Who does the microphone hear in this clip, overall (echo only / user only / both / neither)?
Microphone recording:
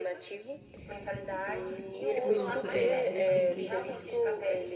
both